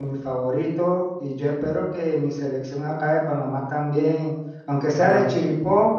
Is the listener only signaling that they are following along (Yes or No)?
Yes